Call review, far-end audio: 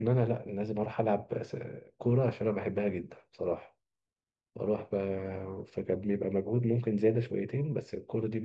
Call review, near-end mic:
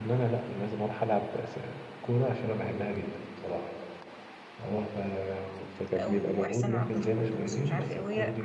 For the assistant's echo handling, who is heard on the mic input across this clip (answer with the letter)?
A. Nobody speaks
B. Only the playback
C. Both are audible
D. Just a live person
C